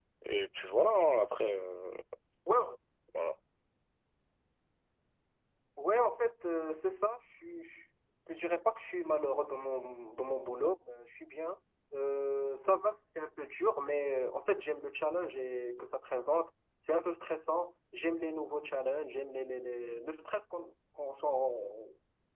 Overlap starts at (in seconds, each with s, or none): none